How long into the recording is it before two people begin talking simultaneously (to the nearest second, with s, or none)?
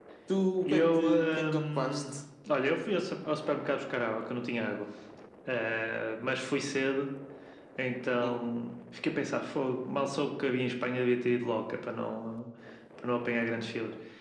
1 s